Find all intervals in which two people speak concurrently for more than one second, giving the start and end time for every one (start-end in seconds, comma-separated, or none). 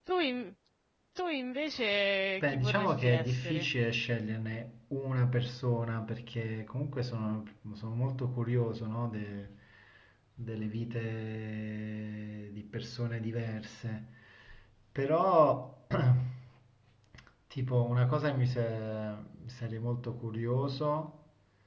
2.4-3.7